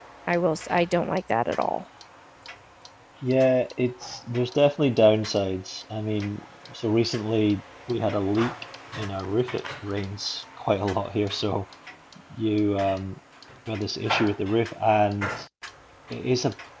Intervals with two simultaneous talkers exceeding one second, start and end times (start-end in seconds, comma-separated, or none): none